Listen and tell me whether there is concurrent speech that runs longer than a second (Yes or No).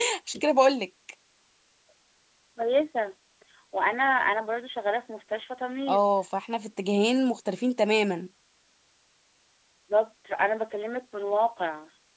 No